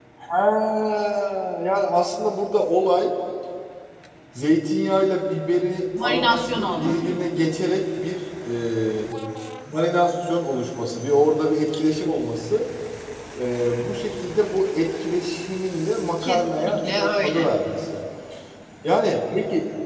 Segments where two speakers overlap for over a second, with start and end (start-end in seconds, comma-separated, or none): 6.0-7.2, 16.2-17.5